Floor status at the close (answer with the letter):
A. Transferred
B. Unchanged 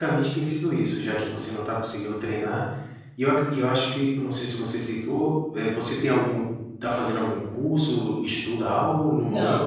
A